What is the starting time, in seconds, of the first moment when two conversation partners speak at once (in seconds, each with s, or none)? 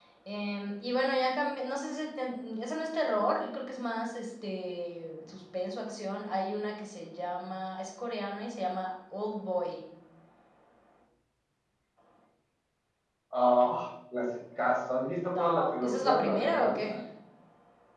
15.3 s